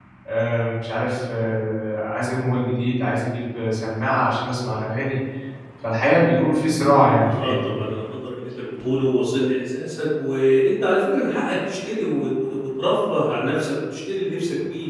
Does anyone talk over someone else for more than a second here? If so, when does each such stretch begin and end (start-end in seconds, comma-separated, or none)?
none